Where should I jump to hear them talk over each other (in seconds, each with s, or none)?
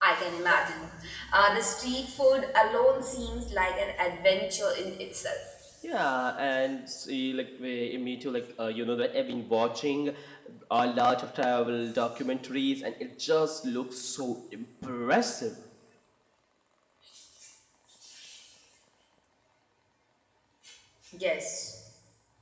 none